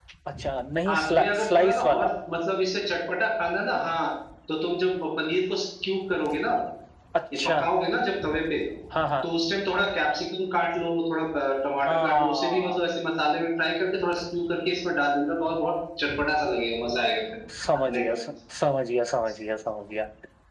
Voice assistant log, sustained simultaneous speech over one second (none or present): present